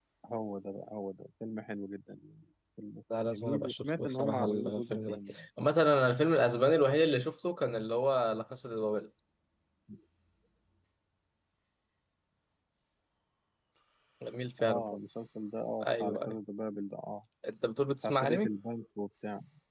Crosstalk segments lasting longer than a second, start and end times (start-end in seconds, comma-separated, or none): 3.3-5.2